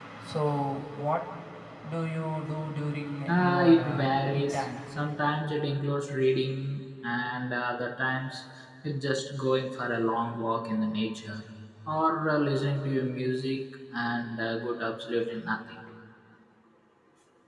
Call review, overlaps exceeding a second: present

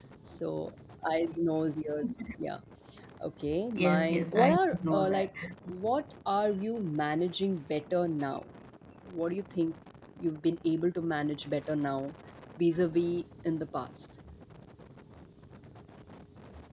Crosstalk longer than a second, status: present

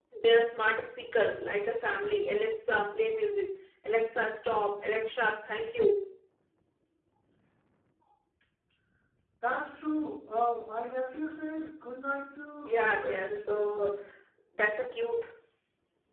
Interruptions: present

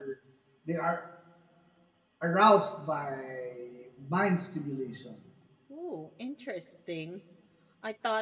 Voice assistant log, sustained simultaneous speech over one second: none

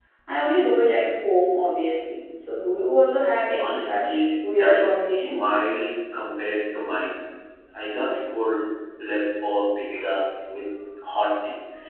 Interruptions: present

